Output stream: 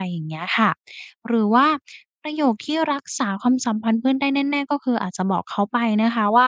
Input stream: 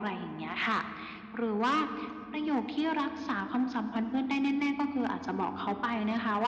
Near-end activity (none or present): none